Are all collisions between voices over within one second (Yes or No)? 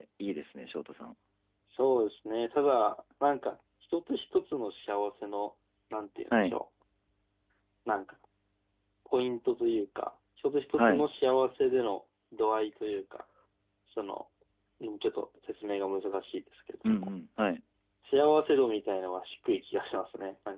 Yes